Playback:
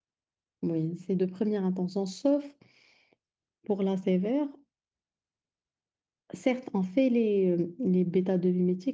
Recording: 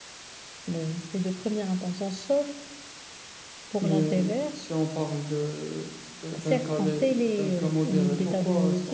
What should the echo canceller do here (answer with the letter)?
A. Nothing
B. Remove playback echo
B